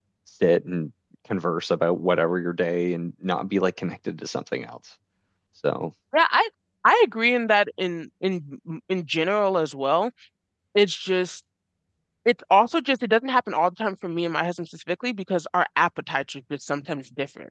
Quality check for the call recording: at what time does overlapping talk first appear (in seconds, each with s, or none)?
none